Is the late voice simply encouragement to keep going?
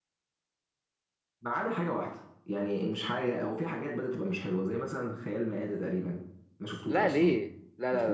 No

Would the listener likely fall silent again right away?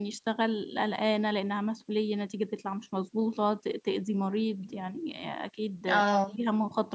Yes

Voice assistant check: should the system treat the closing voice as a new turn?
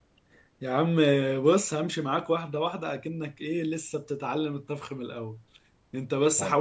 No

